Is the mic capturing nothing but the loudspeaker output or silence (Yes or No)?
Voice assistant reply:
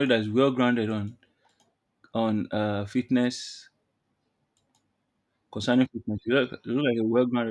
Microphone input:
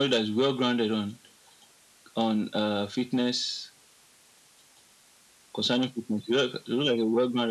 Yes